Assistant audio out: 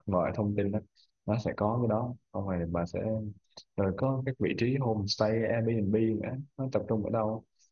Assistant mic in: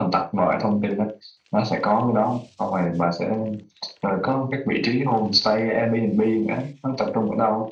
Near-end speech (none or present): none